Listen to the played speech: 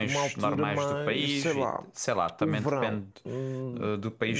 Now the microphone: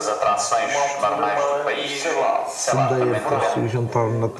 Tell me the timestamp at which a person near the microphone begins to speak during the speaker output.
2 s

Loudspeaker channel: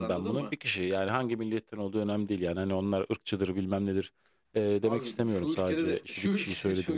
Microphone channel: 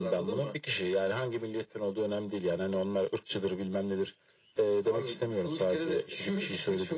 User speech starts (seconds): none

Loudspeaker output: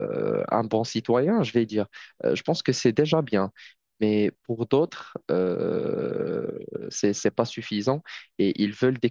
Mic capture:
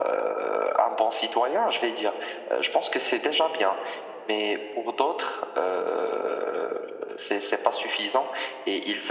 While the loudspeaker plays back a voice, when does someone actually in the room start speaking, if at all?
none

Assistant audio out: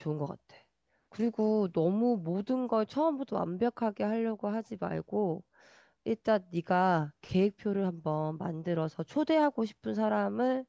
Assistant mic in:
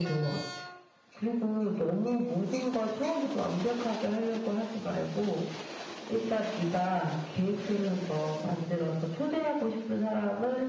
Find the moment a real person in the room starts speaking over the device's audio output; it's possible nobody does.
none

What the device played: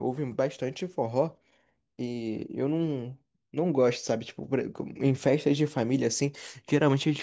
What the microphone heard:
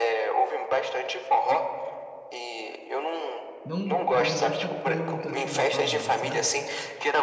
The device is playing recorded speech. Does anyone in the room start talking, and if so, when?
4 s

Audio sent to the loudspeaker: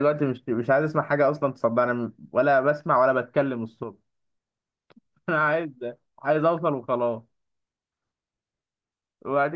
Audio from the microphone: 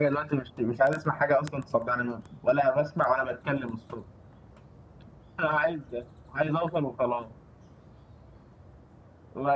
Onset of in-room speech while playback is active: none

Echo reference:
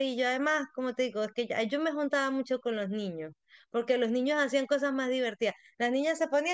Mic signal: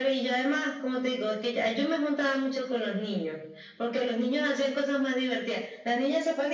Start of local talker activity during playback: none

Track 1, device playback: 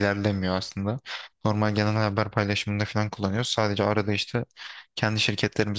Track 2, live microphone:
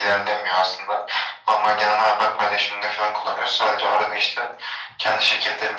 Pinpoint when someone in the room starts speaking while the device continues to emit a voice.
none

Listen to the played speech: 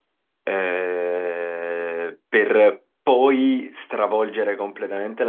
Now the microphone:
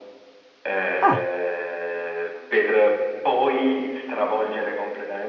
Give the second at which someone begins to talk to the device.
1 s

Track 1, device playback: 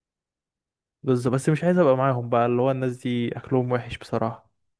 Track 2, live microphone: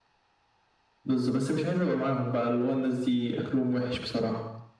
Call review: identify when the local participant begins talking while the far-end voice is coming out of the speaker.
none

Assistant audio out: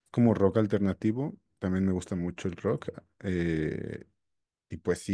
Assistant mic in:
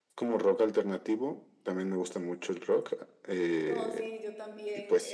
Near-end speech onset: 4 s

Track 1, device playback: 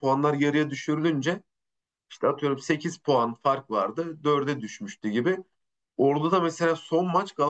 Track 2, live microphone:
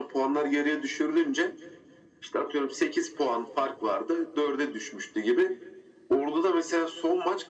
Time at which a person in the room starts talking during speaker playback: none

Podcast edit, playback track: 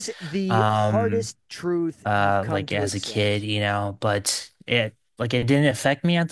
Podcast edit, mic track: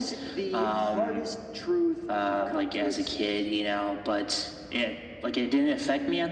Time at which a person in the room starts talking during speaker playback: none

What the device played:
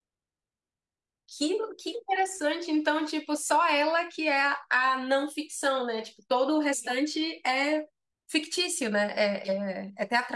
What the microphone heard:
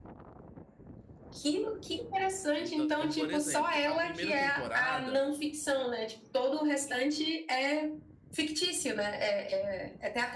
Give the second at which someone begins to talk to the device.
3 s

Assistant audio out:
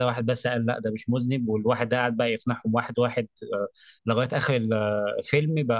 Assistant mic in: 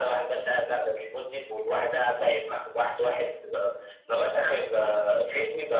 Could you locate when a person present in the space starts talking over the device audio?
none

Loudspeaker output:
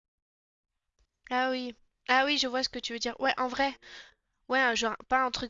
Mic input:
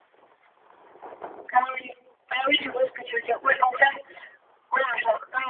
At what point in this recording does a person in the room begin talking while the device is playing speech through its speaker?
none

